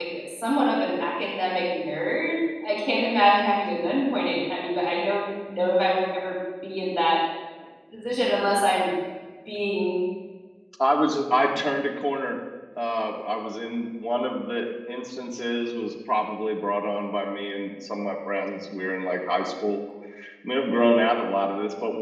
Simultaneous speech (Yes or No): No